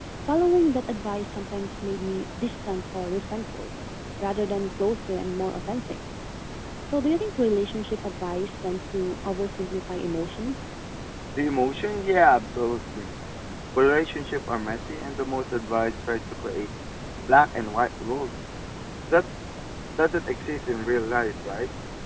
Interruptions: none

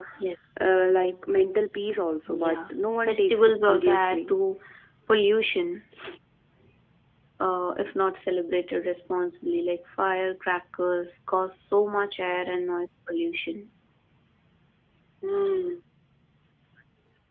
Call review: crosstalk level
present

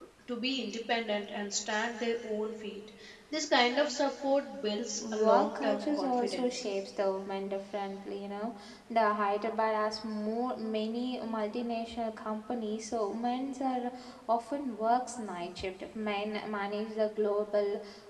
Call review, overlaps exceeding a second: present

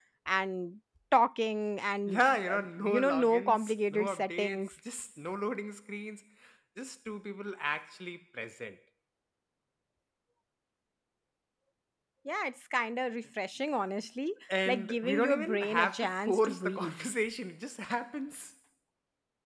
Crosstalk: present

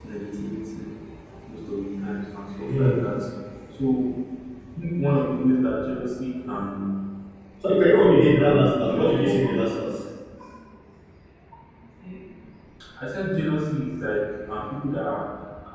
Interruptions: present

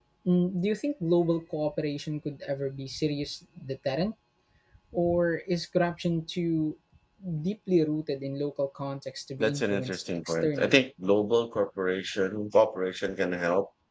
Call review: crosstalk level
present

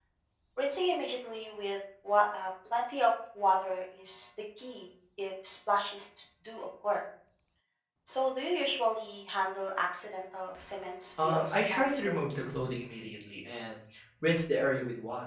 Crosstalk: present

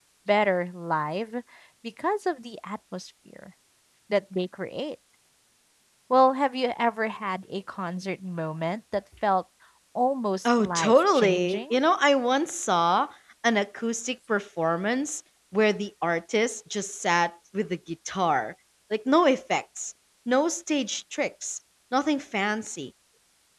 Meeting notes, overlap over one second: present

